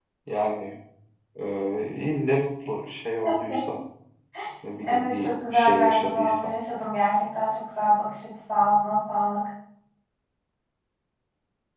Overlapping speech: Yes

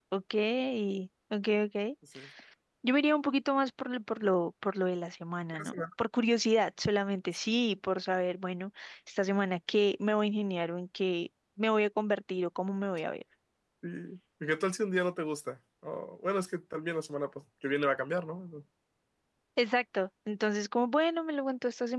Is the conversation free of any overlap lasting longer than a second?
Yes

